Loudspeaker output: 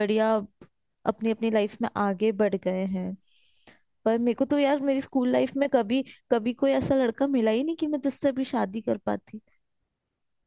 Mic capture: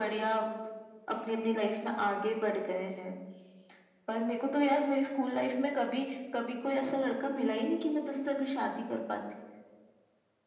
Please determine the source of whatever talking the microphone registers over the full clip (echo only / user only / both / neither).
echo only